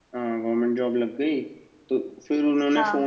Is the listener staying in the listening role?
Yes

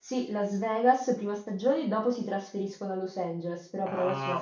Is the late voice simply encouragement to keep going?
No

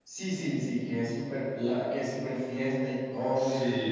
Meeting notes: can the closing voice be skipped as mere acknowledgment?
No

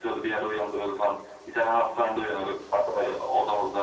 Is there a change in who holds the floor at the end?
No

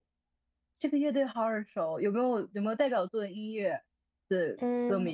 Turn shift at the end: Yes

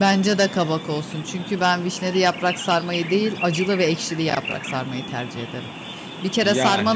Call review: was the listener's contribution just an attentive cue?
Yes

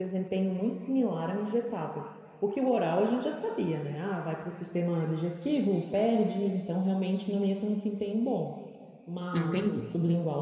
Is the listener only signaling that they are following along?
Yes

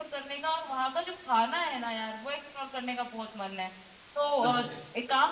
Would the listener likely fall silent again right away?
Yes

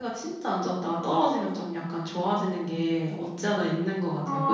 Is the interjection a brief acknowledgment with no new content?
No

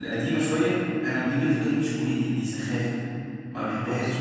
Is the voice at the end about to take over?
Yes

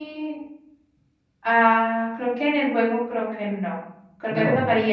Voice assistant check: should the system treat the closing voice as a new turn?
No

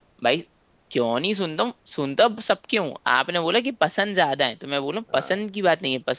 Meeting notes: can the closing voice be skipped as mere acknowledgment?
Yes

